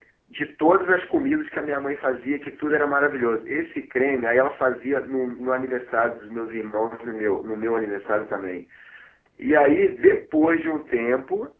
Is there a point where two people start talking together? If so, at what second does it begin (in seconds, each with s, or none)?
none